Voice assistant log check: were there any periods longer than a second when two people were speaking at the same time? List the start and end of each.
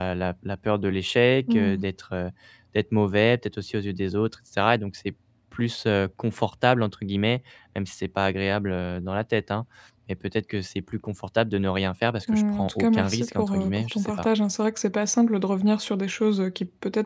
12.3-14.1

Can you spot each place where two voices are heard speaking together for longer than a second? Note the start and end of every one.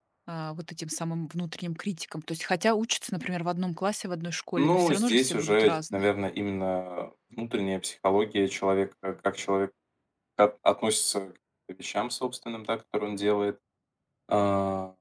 4.6-6.1

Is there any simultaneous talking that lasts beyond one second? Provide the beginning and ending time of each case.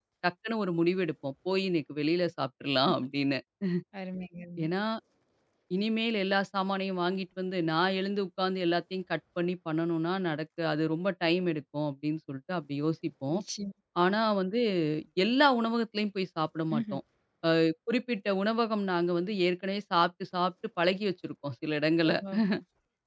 none

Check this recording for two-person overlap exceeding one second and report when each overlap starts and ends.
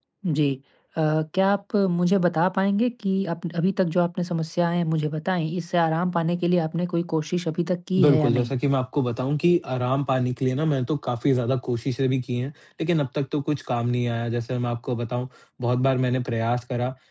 none

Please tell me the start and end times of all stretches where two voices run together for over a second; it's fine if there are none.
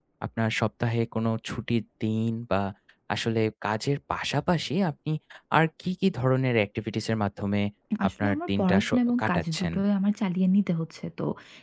8.1-9.7

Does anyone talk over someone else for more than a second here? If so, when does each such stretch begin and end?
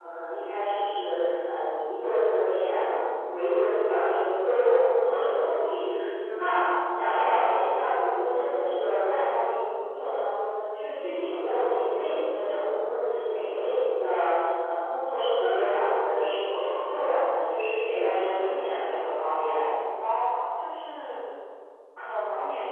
17.9-19.7

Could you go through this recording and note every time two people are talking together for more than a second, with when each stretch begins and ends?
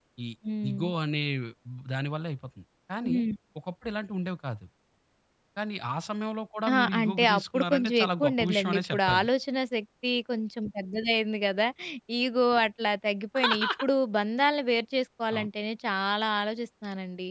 6.7-9.3

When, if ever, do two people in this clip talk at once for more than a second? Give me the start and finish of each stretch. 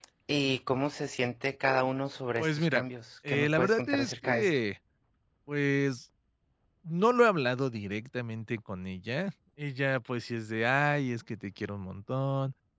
3.3-4.5

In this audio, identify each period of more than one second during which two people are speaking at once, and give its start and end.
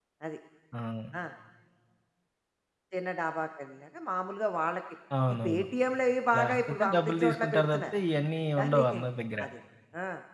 6.4-7.9

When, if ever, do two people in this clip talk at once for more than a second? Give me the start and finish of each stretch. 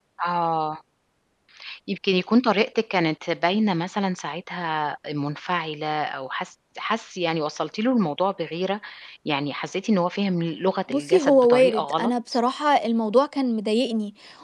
10.9-12.1

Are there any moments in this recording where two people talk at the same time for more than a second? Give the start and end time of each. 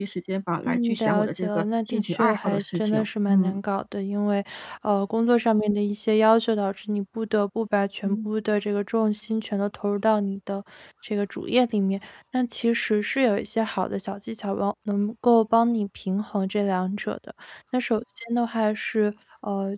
0.7-3.6

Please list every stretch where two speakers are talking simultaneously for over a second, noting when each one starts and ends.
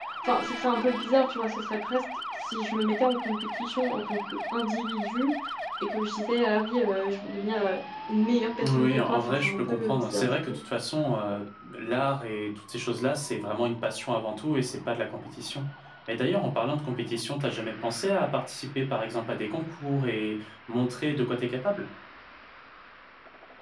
8.7-10.6

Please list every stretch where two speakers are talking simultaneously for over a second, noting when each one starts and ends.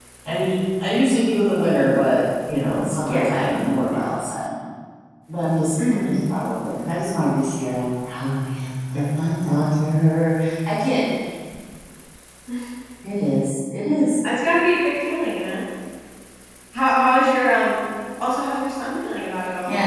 none

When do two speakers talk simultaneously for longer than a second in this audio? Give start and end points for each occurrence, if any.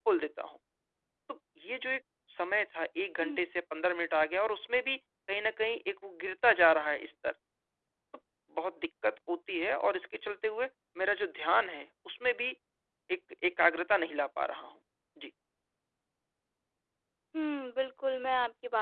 none

